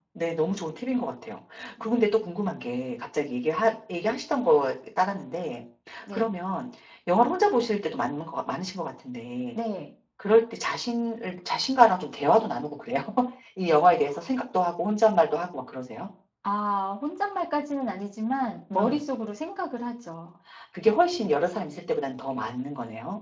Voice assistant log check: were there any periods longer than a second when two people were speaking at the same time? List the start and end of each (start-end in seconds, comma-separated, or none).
none